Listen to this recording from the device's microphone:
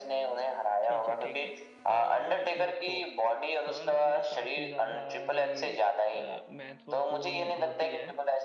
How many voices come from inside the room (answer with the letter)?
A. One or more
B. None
A